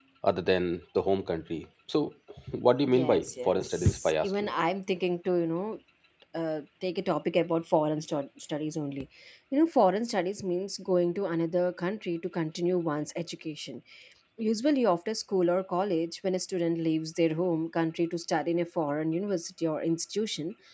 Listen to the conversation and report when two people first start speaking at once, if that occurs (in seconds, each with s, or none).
2.9 s